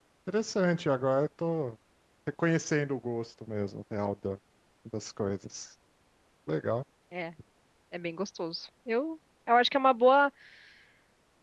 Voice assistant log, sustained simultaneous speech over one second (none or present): none